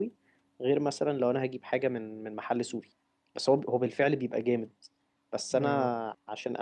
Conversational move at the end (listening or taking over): listening